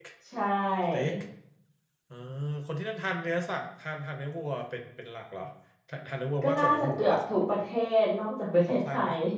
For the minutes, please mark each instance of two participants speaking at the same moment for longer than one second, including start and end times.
6.4-7.6

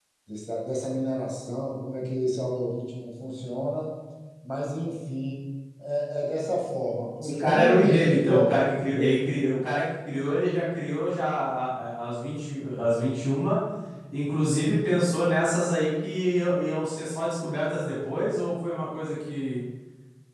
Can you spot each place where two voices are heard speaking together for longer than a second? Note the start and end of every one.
7.3-8.5

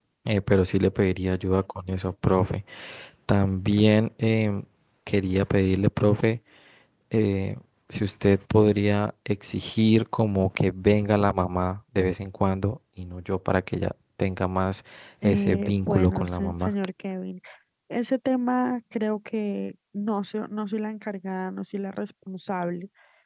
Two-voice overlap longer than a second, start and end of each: 15.2-16.7

